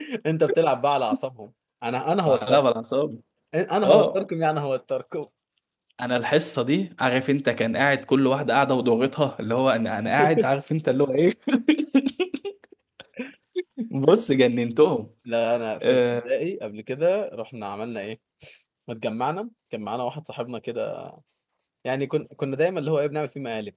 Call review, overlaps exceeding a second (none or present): none